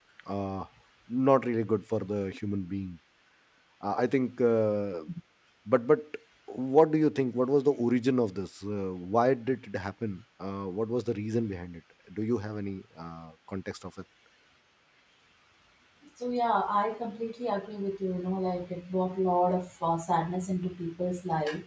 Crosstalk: none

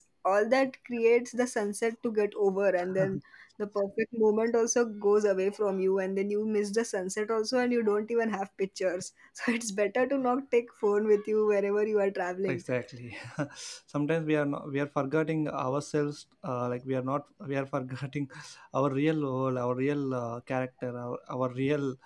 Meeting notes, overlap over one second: none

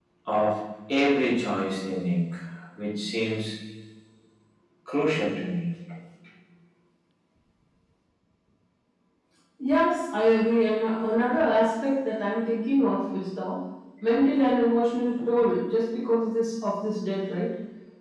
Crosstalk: none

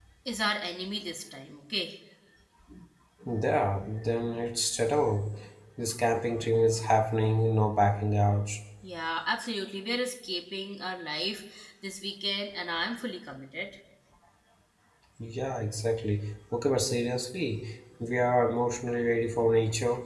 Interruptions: none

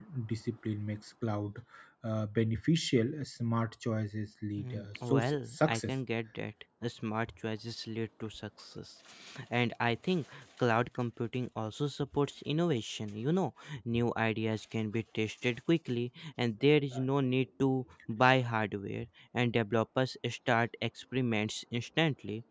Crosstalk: present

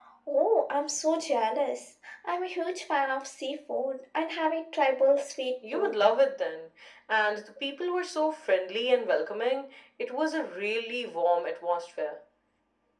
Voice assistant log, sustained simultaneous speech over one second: none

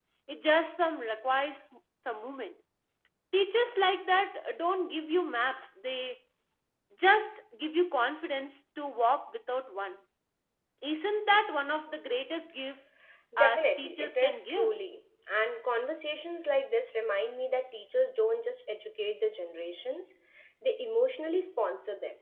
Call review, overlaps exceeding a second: present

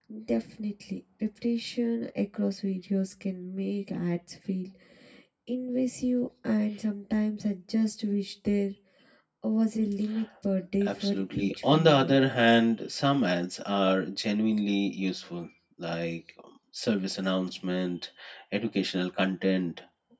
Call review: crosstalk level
present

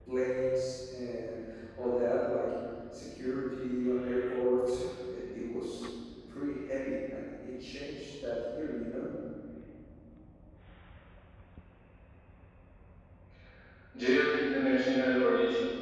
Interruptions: none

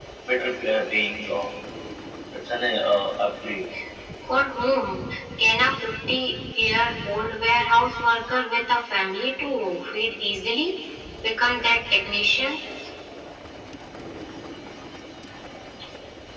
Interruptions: none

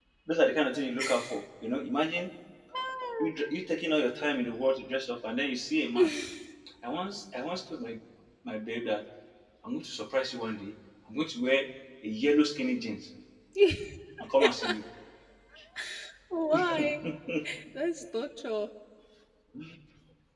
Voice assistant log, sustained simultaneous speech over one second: none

